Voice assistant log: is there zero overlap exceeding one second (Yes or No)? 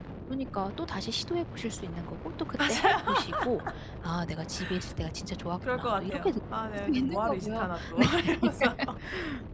No